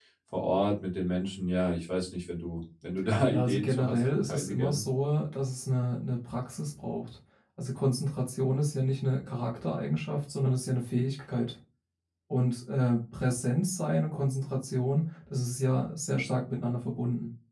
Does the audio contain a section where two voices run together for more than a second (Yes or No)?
Yes